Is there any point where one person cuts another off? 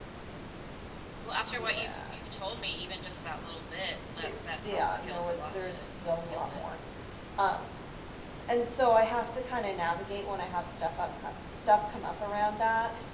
Yes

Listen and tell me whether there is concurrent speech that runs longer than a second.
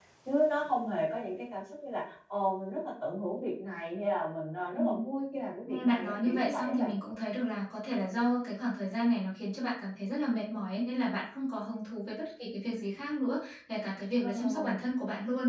Yes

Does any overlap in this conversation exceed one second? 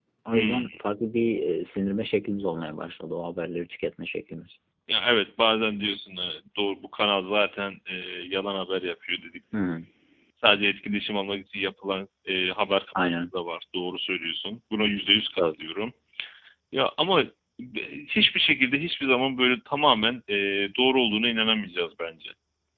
No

